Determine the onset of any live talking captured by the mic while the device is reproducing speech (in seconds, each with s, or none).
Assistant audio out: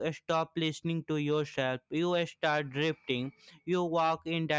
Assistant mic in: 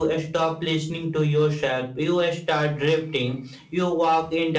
none